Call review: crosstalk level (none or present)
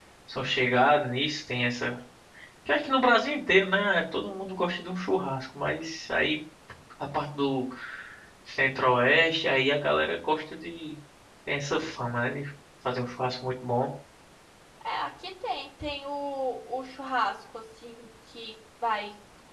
none